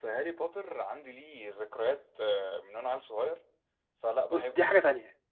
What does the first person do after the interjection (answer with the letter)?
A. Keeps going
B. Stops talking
B